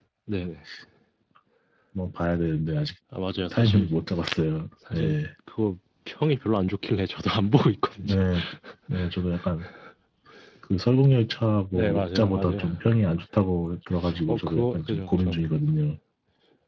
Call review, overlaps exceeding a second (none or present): present